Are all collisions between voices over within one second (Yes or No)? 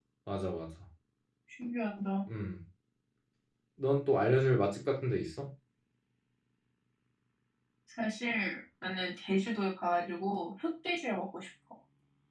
Yes